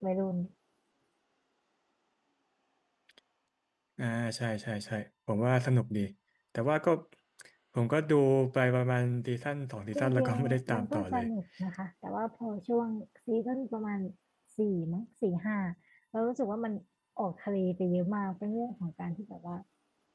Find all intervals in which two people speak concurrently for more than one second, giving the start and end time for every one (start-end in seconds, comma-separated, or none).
9.9-11.2